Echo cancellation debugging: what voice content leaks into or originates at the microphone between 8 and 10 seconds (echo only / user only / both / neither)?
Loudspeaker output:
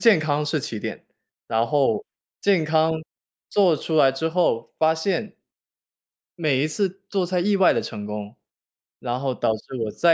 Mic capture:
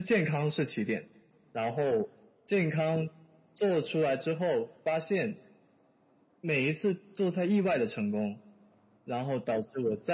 echo only